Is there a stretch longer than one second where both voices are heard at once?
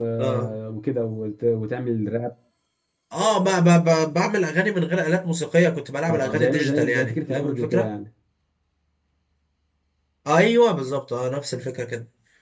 Yes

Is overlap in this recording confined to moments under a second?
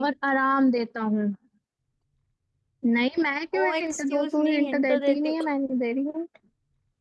No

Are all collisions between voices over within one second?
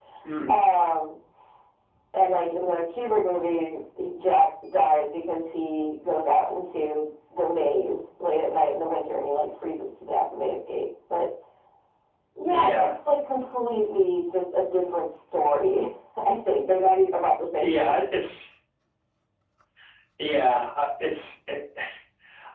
Yes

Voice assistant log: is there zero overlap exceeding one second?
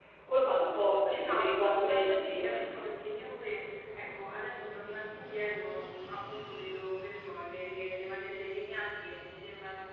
No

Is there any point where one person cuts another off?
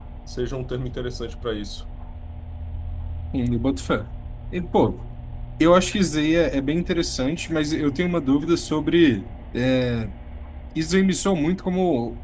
No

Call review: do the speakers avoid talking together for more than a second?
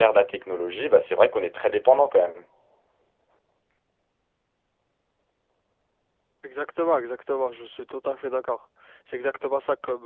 Yes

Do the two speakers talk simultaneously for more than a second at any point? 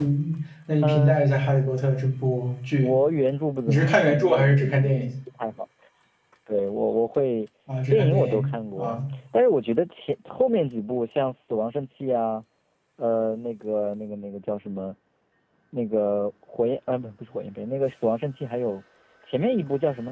Yes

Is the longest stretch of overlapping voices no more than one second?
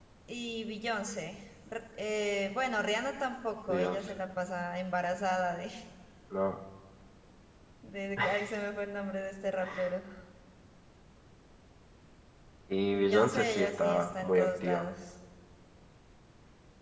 No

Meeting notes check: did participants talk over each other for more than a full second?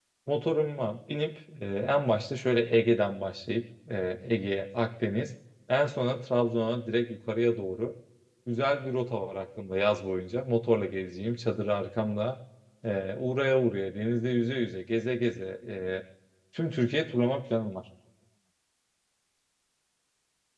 No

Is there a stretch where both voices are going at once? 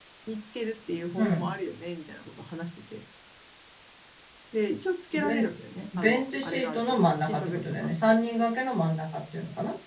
Yes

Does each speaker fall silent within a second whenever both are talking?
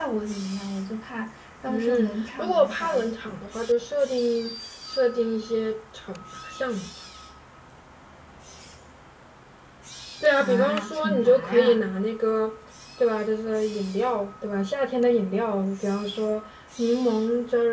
No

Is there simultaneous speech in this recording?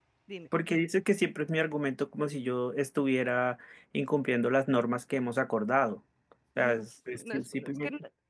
Yes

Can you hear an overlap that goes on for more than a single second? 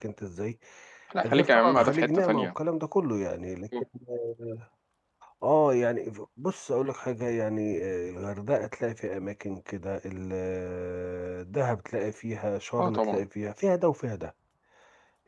Yes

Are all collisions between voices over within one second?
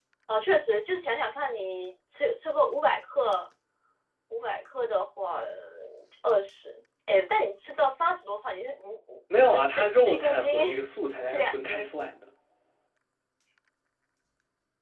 No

